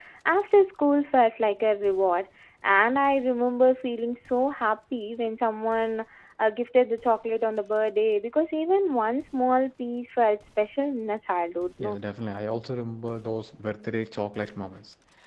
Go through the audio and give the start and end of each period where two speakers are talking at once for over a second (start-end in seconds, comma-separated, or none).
none